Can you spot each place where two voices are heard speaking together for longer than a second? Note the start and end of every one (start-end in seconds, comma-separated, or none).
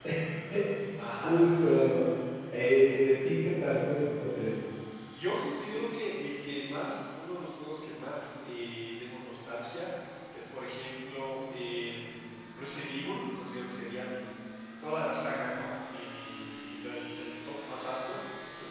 none